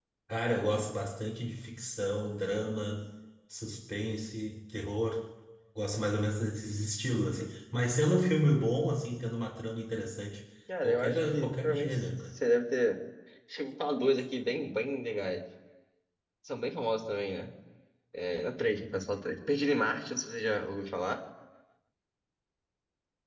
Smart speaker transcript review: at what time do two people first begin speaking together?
10.7 s

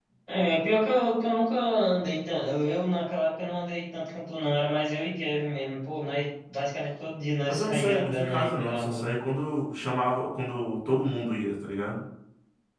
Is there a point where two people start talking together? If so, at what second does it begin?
7.5 s

